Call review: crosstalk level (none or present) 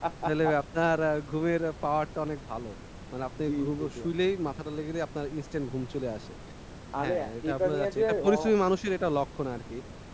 present